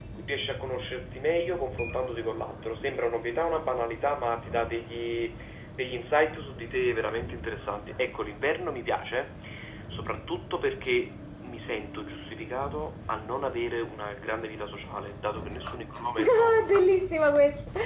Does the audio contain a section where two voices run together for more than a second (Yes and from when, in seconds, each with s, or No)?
No